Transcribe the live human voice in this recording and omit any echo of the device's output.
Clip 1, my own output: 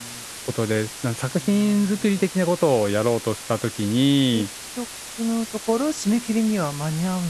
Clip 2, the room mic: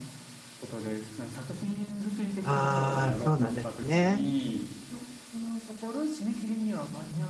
ああ、そうなんですね。

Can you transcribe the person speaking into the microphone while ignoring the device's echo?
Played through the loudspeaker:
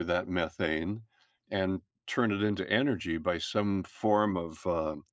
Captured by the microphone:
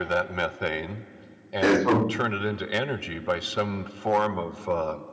And so

